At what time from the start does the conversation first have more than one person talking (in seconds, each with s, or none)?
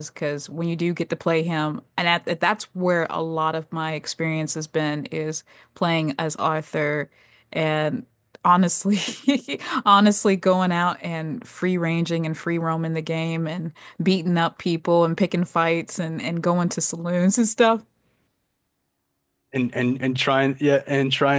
none